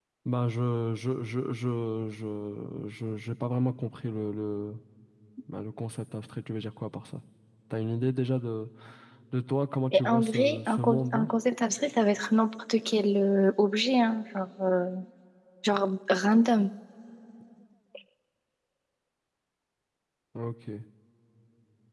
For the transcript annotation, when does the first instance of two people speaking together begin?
9.9 s

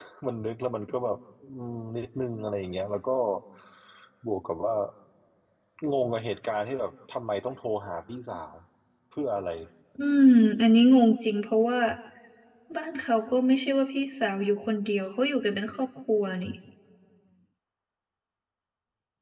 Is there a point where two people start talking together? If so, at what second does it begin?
none

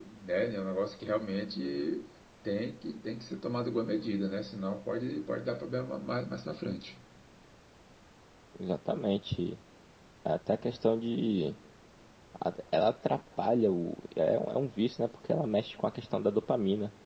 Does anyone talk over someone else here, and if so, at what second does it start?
none

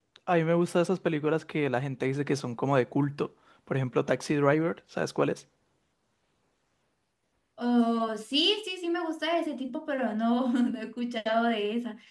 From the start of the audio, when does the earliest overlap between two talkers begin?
none

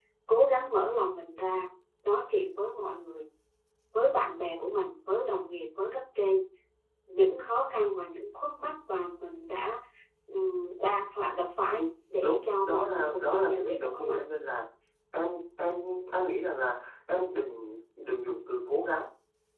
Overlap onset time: 12.2 s

